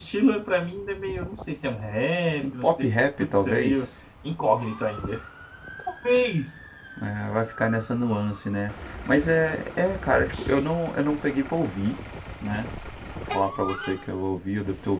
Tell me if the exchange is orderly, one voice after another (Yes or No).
No